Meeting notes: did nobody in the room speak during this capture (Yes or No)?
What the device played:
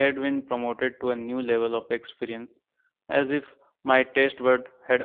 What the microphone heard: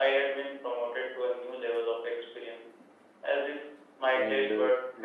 No